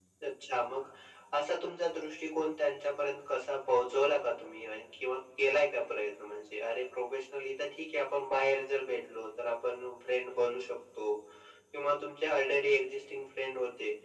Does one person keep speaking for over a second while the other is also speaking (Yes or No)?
No